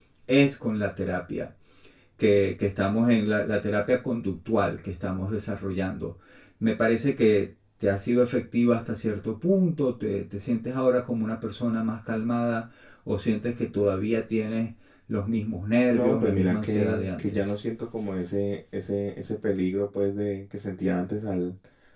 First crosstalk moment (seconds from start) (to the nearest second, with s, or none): 16 s